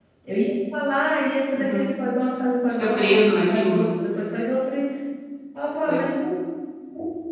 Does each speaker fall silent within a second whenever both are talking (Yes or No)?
No